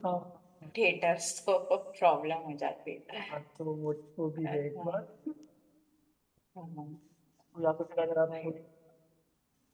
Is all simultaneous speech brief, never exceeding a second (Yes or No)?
Yes